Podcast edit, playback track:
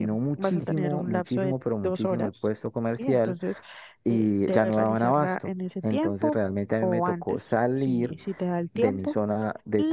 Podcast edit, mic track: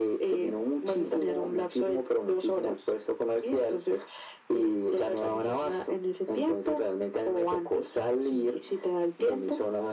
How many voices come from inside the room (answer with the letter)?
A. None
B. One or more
A